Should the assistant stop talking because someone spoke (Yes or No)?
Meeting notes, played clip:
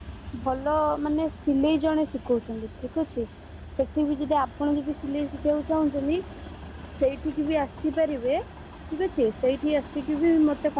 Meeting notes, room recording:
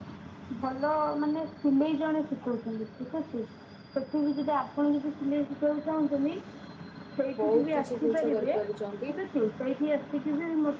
Yes